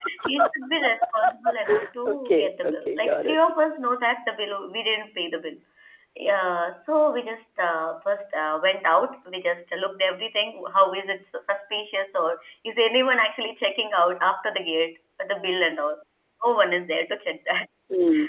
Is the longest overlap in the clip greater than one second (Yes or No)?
Yes